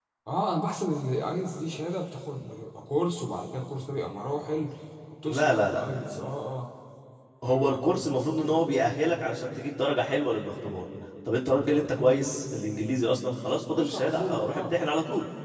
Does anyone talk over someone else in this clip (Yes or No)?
Yes